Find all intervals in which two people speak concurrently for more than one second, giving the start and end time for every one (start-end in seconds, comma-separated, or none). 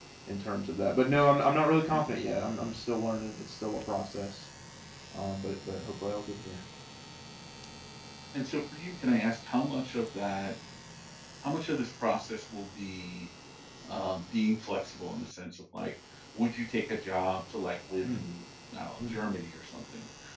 none